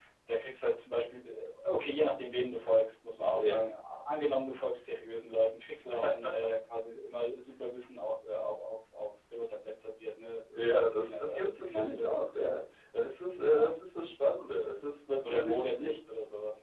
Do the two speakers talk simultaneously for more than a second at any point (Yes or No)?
Yes